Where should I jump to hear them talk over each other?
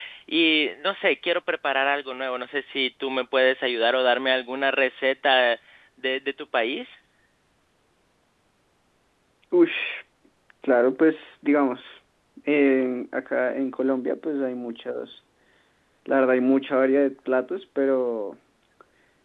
none

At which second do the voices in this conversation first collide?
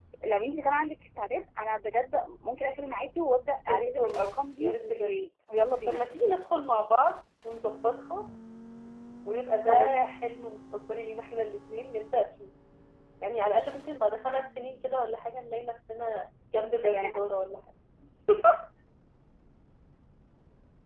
3.7 s

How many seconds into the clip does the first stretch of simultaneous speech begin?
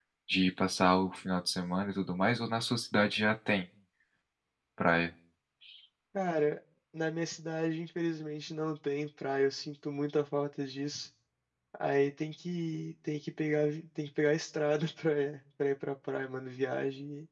none

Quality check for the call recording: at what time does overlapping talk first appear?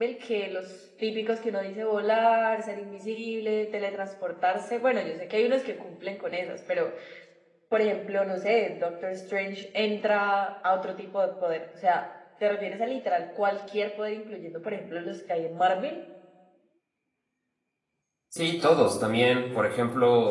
none

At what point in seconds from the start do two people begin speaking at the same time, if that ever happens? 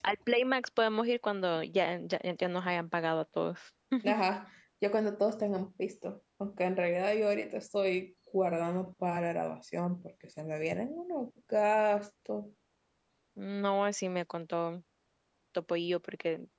none

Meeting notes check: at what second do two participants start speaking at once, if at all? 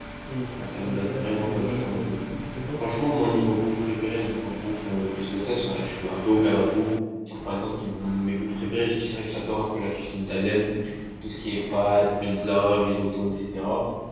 0.8 s

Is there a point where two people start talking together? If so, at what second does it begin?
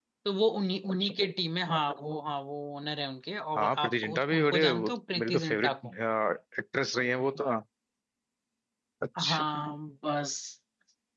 3.5 s

